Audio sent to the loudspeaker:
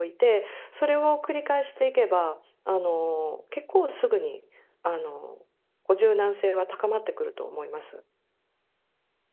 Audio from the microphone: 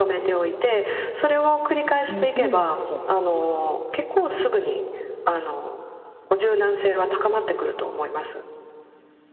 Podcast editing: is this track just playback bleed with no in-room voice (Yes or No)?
No